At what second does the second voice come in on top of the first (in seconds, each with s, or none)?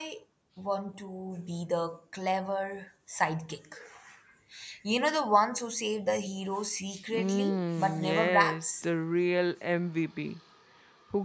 7.1 s